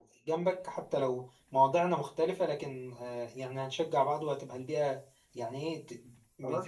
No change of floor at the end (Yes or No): No